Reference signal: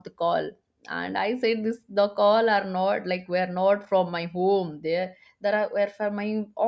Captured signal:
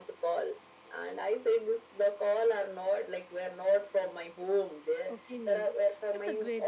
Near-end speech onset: 5.1 s

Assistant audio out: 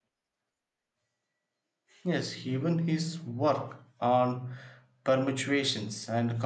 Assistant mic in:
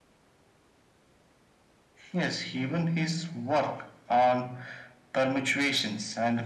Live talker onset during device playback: none

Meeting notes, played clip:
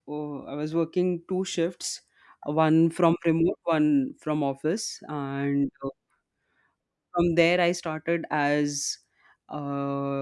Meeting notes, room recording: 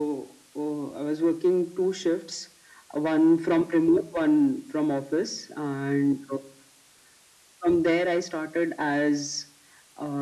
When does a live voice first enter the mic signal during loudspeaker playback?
none

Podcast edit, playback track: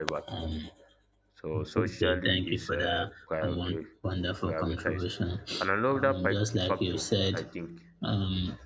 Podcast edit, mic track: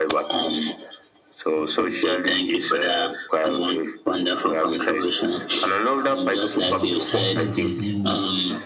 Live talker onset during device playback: 6.6 s

